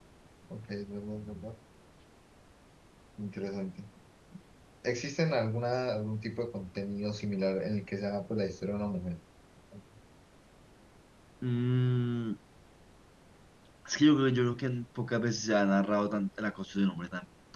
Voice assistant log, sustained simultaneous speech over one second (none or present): none